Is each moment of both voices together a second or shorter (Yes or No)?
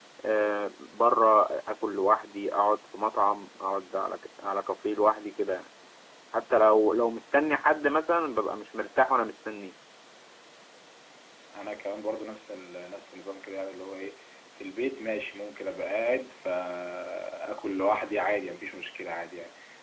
Yes